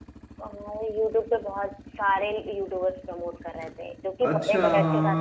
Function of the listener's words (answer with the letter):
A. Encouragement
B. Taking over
B